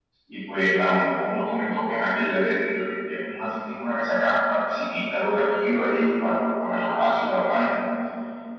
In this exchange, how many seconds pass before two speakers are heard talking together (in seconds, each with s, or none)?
none